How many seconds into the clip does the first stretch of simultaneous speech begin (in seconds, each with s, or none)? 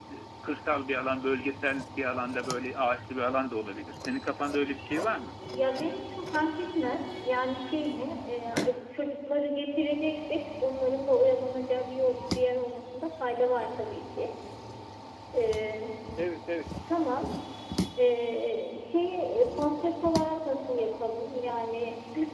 none